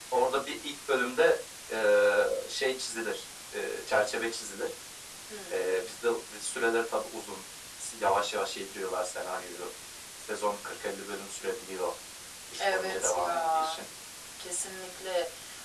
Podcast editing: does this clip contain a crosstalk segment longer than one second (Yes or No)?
Yes